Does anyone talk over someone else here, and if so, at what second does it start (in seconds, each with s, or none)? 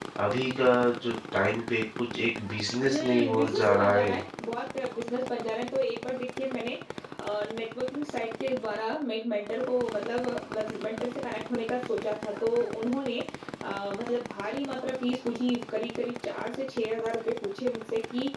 2.8 s